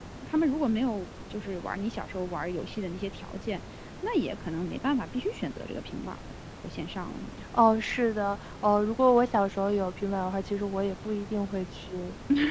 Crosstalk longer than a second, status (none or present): none